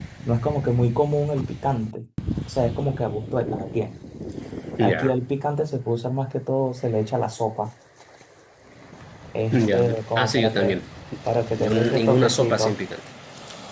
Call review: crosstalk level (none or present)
present